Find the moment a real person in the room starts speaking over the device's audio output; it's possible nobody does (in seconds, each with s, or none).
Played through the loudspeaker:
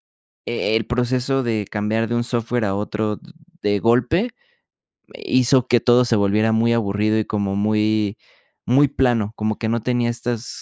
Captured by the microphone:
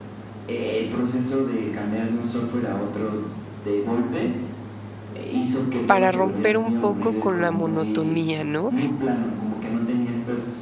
5.9 s